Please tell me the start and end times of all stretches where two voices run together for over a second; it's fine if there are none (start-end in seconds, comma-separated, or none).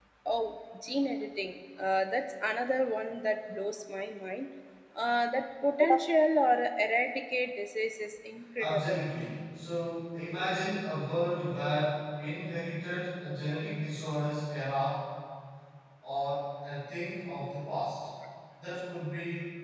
none